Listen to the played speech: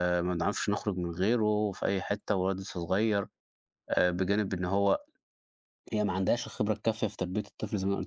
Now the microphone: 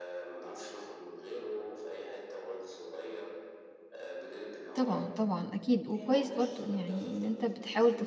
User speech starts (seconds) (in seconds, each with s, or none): 4.7 s